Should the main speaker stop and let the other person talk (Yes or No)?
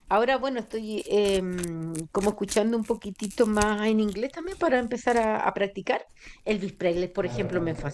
No